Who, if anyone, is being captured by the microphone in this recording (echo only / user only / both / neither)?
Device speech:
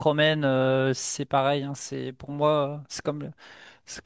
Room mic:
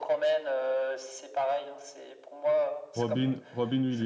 both